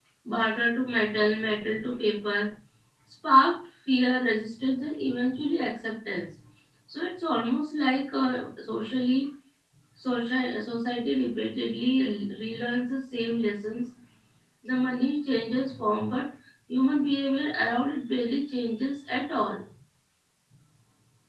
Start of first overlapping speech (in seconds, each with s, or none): none